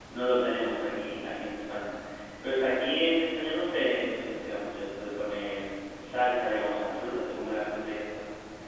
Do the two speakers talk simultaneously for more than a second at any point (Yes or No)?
No